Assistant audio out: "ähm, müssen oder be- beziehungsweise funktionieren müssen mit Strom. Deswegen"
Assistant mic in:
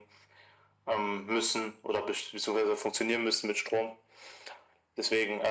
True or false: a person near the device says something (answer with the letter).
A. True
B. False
B